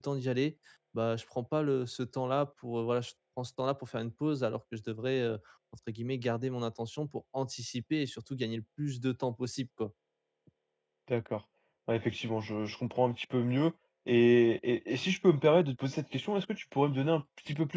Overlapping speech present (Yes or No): No